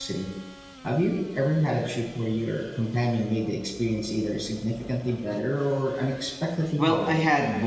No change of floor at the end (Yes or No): No